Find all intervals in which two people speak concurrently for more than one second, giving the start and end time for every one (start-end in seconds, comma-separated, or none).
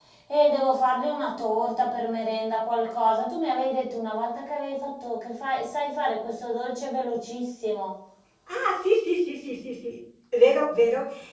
none